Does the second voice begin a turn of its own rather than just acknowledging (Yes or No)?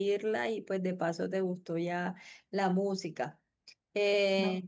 No